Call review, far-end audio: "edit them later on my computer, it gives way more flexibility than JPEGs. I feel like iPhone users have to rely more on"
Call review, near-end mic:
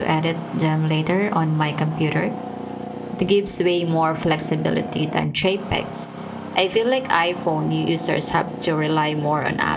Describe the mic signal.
echo only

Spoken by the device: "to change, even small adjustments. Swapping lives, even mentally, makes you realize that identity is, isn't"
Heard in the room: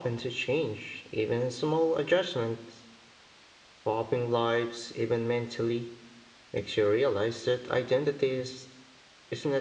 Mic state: echo only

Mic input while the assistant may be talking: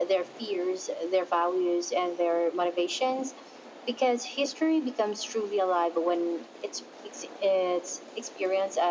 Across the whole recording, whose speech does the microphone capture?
echo only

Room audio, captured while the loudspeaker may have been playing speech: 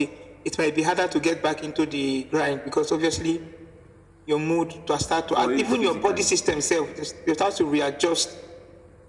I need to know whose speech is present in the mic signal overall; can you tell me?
both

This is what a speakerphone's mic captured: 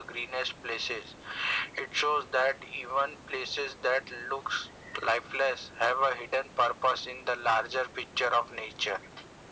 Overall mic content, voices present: echo only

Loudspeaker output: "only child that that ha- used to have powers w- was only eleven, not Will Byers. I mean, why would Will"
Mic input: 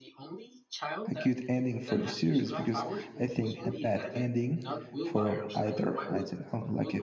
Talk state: both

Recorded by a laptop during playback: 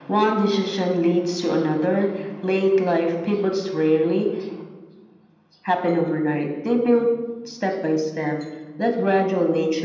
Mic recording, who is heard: echo only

